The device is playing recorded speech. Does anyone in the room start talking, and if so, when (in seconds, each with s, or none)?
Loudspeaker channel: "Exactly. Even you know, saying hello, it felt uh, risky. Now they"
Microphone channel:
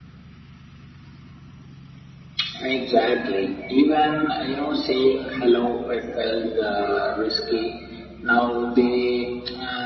none